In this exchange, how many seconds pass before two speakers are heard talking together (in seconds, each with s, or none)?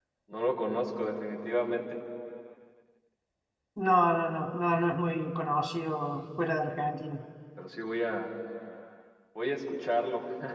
none